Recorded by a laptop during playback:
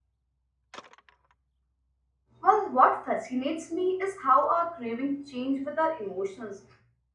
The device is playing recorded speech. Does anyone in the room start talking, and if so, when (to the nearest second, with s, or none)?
2 s